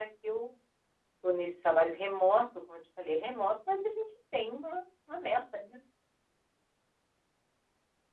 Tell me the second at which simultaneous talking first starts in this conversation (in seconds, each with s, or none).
none